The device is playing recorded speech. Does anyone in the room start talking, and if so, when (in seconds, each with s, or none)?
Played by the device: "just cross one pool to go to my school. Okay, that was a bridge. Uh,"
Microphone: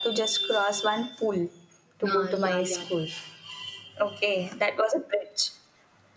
2.1 s